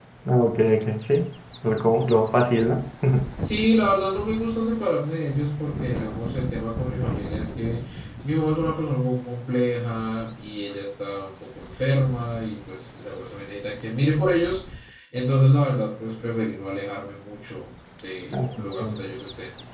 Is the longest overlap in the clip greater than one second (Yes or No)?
No